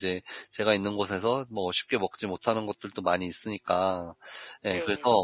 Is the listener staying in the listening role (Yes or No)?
Yes